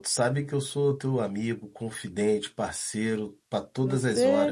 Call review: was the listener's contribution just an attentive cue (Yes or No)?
No